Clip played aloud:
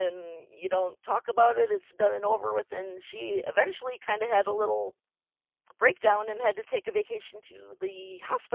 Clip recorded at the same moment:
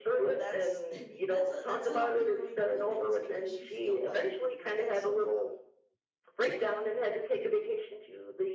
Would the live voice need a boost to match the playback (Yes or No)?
Yes